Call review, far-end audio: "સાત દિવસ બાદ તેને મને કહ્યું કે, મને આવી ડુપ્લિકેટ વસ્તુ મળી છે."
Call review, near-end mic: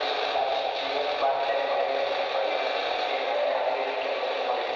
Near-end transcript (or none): none